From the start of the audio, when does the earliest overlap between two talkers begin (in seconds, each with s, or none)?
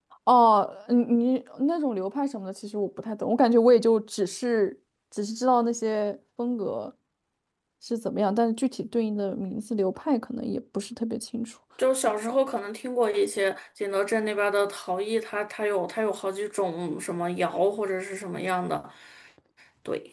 none